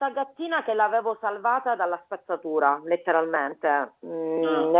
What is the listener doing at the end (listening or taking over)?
listening